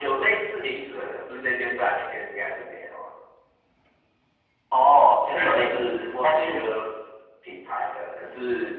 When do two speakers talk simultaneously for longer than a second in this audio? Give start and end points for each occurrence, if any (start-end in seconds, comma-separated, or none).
5.3-6.6